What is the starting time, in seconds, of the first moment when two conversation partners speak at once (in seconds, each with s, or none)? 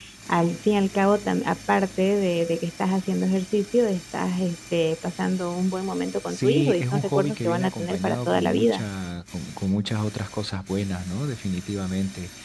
6.3 s